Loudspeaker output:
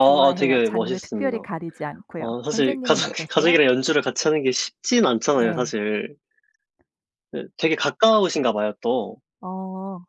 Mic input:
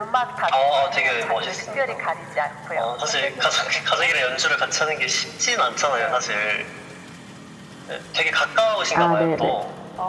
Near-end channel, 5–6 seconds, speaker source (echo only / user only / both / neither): echo only